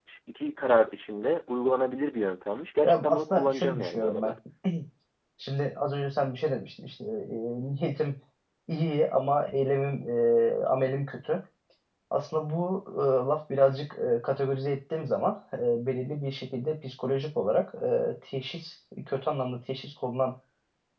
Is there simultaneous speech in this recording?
Yes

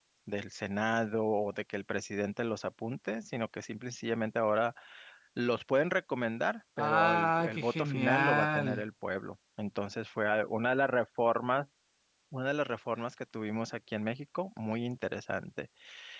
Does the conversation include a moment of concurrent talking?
Yes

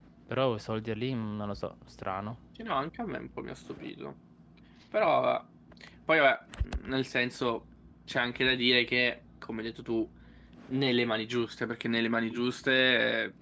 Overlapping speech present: No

